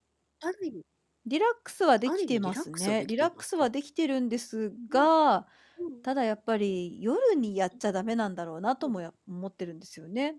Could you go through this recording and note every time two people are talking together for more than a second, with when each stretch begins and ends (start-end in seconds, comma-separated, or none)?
2.1-3.7